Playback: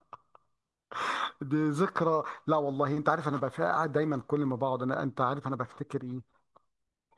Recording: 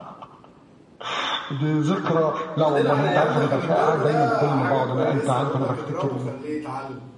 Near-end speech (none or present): present